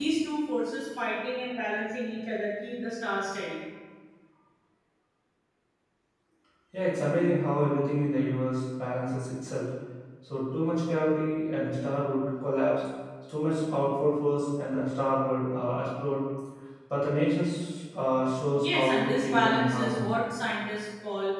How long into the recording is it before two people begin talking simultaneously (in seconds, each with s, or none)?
18.6 s